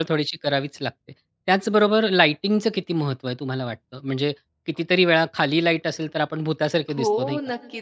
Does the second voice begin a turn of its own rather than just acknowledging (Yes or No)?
Yes